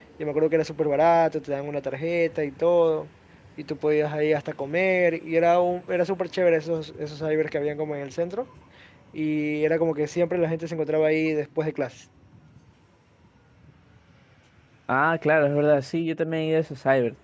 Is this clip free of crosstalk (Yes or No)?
Yes